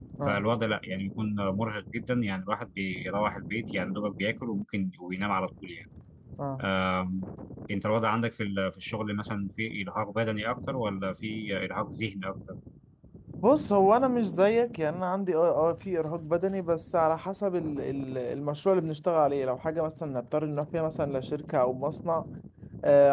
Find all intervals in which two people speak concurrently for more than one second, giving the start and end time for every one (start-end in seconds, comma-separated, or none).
none